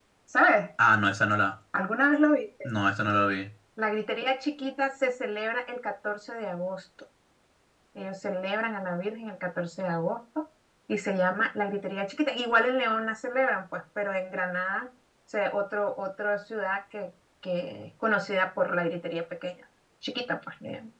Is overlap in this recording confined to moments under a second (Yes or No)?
Yes